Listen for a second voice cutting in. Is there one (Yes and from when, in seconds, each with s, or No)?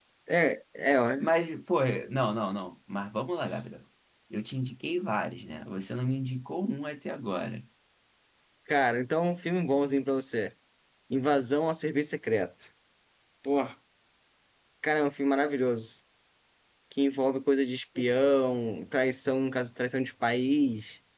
No